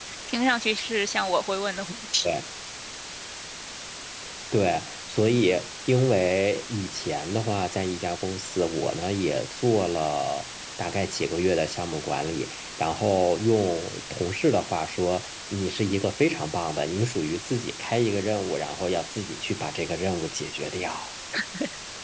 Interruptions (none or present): none